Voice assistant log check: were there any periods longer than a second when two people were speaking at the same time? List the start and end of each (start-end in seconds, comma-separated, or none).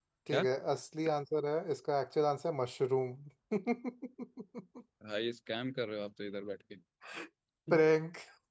none